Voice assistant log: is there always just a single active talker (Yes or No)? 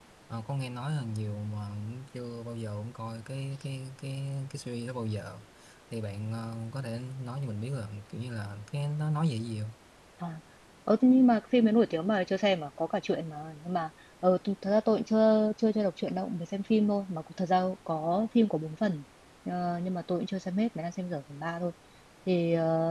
Yes